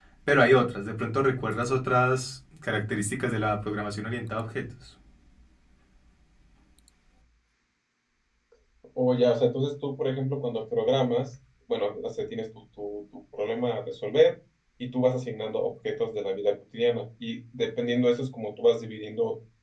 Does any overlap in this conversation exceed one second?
No

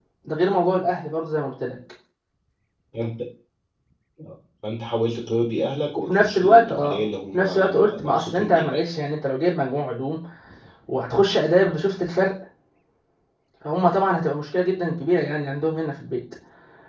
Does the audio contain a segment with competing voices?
Yes, from 6.1 s

